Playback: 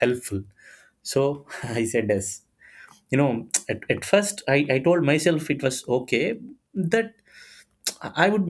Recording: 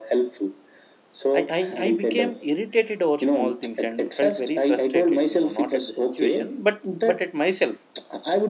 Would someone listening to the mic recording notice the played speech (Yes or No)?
Yes